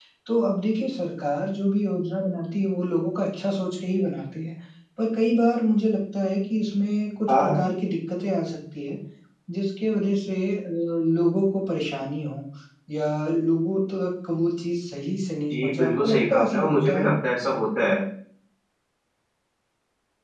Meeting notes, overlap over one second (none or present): present